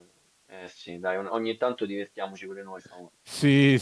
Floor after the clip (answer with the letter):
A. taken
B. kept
A